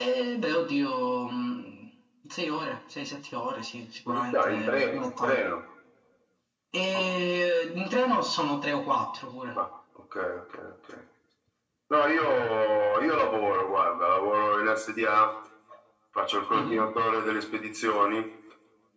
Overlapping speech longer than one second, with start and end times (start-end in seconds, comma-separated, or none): 4.1-5.4